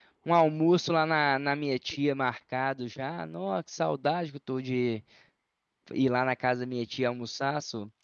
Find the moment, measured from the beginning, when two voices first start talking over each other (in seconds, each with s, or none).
none